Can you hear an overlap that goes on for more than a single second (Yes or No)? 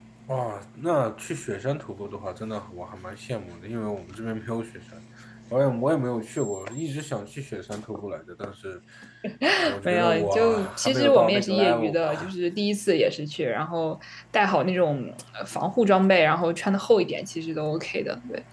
Yes